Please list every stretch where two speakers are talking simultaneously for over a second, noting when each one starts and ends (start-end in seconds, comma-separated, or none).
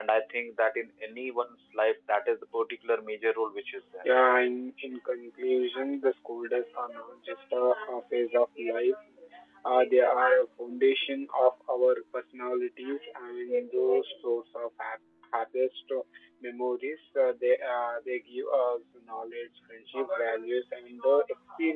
none